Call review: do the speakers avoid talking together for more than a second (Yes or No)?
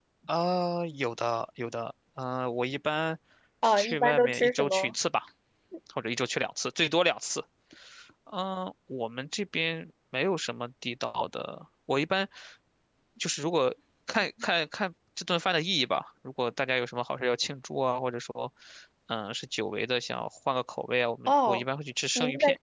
No